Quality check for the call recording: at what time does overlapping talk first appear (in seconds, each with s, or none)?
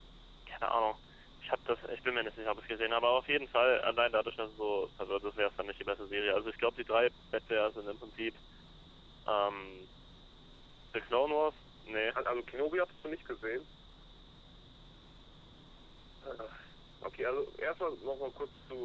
none